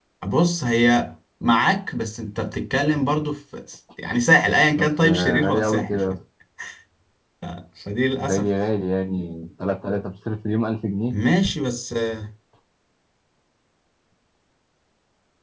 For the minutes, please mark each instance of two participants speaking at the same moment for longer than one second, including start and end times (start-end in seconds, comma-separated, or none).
4.8-6.1